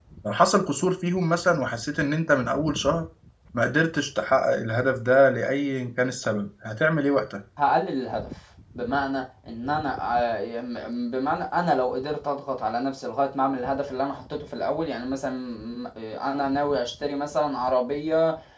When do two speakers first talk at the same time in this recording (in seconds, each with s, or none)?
none